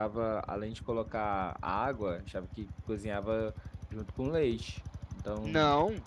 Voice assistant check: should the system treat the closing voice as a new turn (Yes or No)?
Yes